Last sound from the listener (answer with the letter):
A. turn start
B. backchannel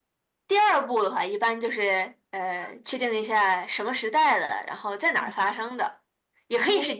B